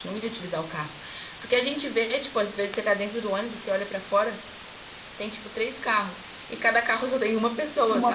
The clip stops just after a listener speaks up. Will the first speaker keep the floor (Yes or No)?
Yes